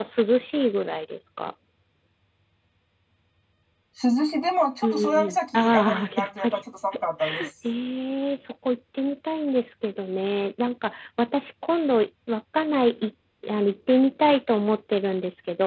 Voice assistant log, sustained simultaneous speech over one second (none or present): present